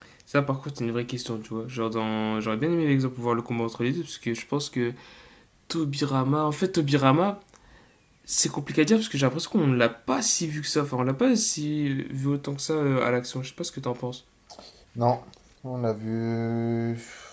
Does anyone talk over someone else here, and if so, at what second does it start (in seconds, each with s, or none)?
none